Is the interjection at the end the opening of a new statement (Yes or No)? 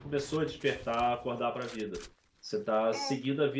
No